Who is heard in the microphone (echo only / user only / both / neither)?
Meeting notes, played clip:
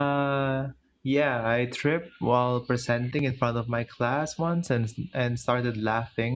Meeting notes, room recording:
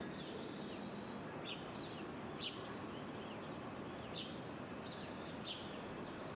neither